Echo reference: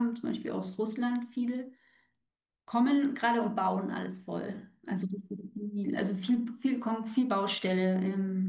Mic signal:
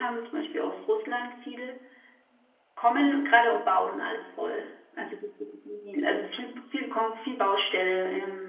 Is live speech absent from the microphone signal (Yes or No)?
Yes